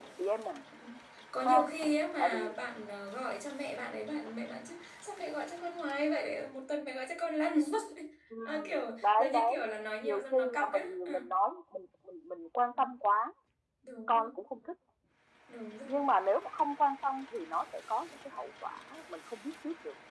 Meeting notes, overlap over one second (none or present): present